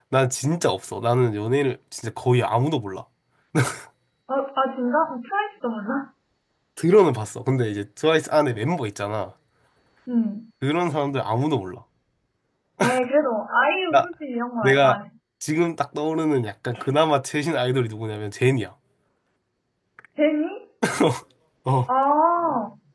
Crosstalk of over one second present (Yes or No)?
No